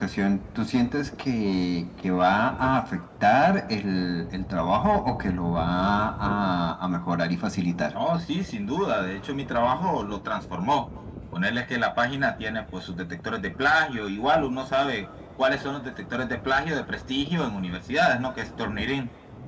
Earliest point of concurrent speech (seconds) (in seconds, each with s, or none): none